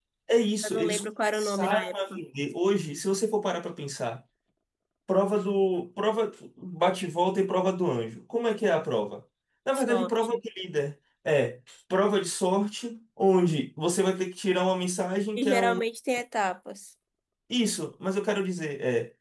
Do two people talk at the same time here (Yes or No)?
Yes